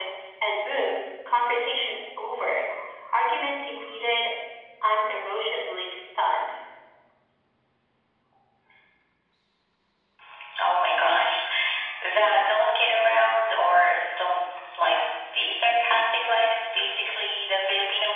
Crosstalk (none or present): none